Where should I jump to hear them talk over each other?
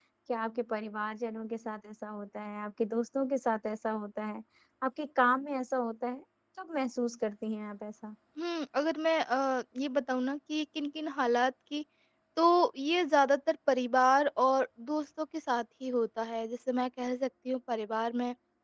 none

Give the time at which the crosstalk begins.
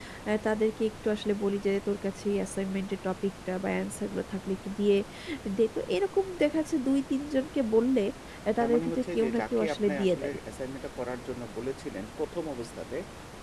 8.6 s

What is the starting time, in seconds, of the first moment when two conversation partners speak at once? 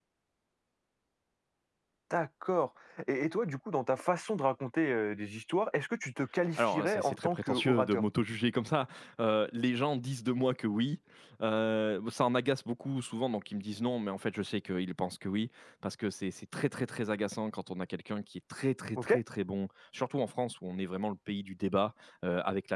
6.6 s

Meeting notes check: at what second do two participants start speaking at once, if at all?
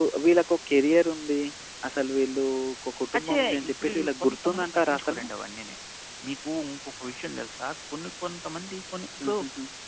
3.1 s

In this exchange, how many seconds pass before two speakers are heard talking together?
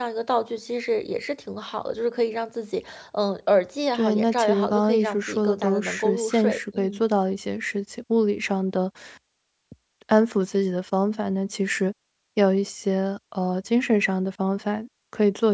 3.9 s

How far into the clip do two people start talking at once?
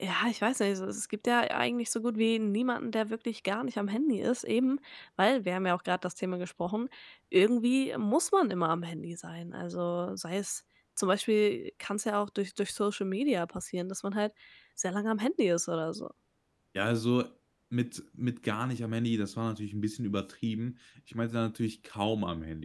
none

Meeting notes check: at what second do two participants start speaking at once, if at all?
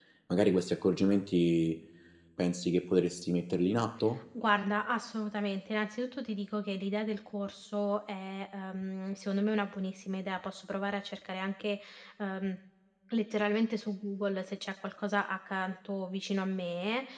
none

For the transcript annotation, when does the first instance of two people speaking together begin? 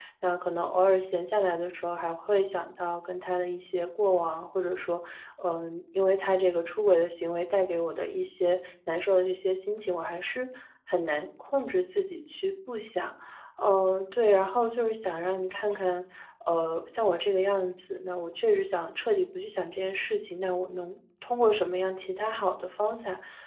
none

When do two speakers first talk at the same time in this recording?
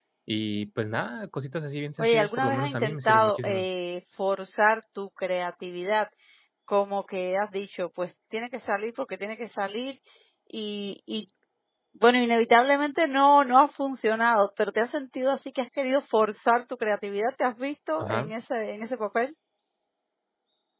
2.0 s

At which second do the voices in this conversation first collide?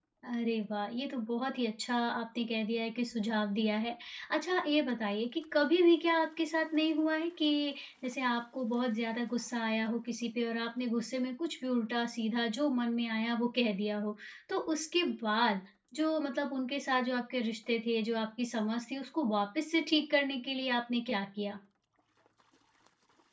none

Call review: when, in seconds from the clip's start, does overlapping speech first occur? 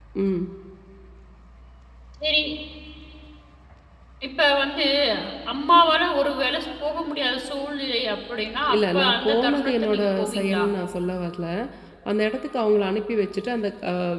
8.5 s

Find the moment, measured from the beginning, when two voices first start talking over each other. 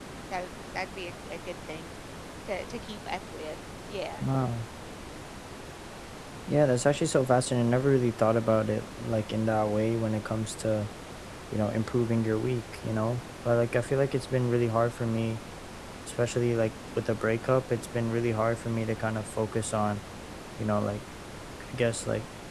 none

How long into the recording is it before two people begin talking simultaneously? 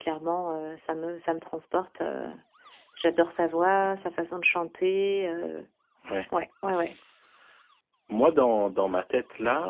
none

